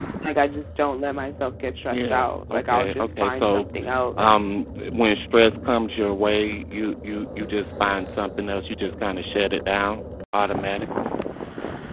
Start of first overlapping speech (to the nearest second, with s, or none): 2 s